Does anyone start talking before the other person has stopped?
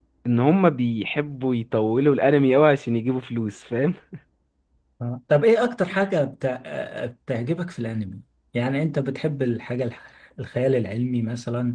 No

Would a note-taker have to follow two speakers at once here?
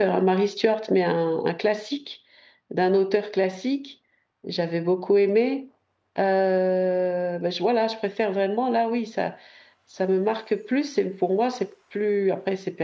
No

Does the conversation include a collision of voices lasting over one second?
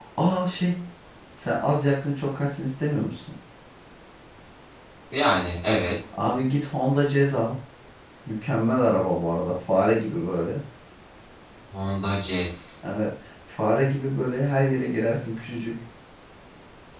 No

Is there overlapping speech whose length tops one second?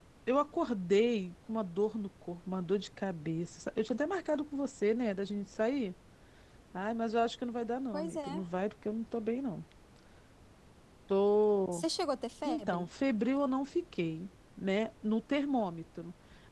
No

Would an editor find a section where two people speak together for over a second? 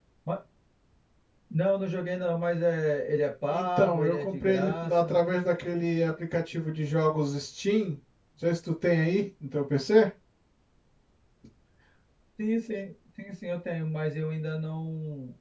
Yes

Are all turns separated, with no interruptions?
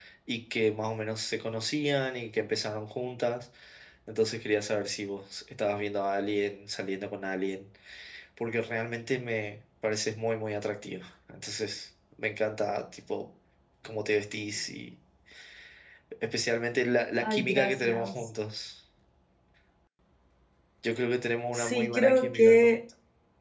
No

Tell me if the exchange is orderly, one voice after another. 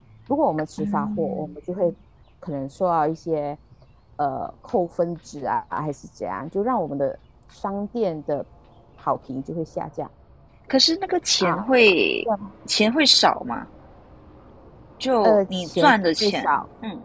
No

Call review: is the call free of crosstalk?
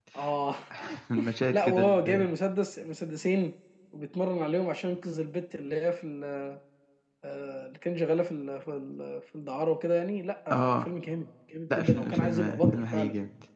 No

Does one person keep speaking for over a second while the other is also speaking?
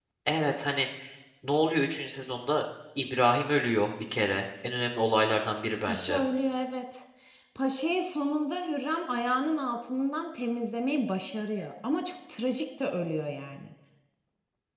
No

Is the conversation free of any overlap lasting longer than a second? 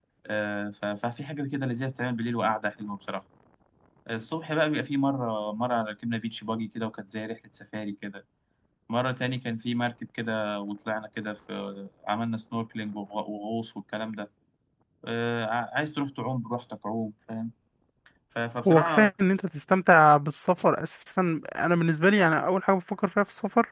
Yes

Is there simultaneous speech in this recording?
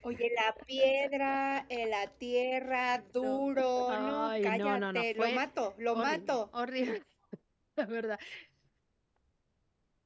Yes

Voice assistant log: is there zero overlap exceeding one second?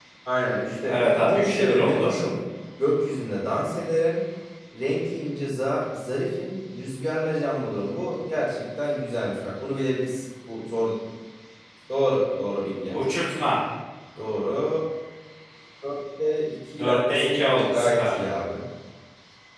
No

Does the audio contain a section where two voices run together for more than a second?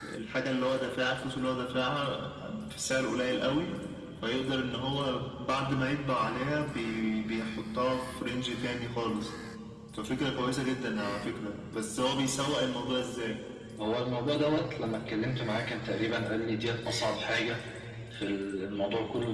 No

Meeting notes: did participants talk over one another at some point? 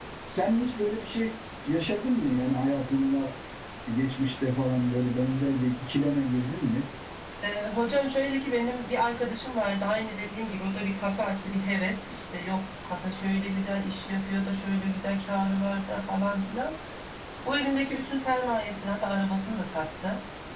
No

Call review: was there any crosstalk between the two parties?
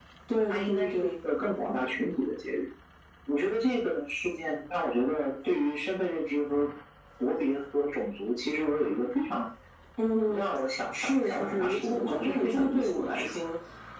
Yes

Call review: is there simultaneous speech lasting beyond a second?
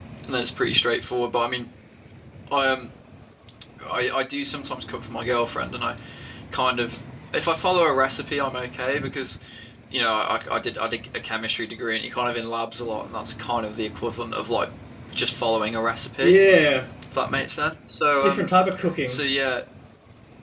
No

